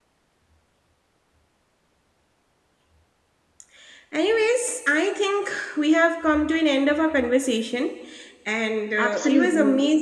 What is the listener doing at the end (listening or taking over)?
listening